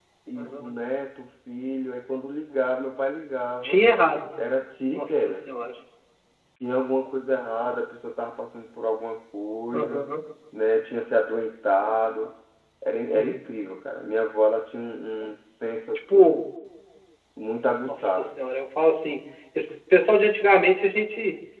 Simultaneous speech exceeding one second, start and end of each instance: none

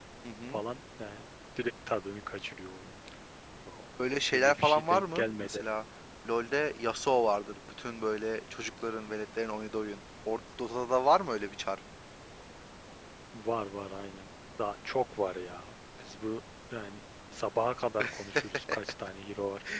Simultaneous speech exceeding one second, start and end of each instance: 4.3-5.6

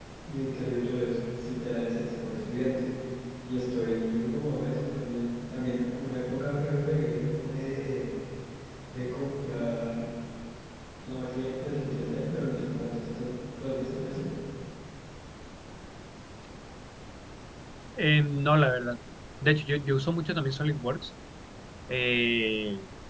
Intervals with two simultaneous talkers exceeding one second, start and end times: none

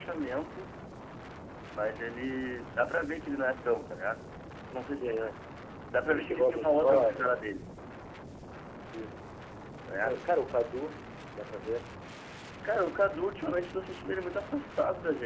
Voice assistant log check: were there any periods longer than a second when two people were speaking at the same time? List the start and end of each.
6.1-7.3

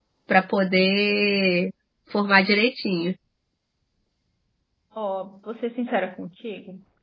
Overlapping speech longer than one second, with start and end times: none

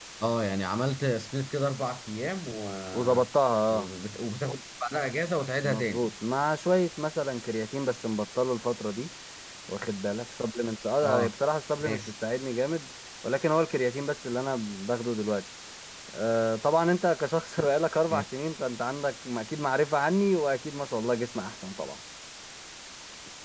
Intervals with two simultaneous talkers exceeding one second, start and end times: none

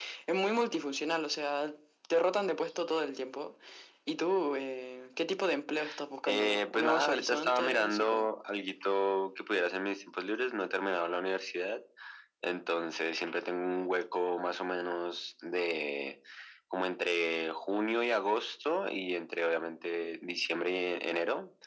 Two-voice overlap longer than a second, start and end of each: 6.3-8.3

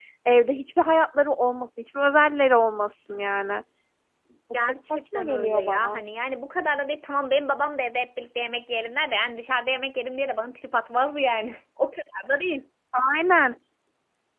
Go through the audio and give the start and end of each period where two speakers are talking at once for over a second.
4.5-6.0

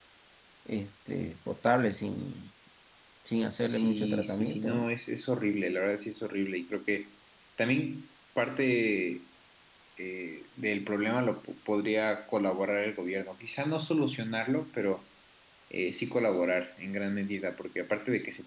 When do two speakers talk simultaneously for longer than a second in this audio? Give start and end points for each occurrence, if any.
3.6-4.9

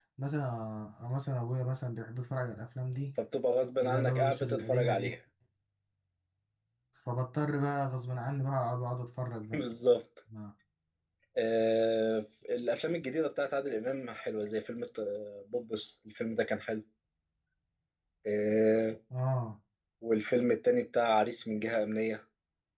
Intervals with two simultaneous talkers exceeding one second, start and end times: 3.8-5.1

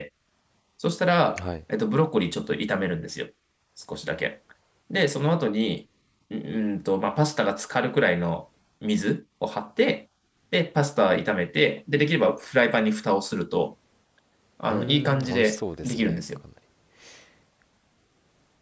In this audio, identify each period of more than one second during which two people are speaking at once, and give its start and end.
14.7-16.2

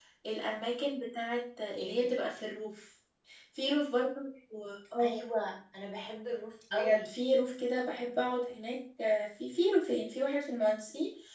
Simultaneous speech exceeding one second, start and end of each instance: none

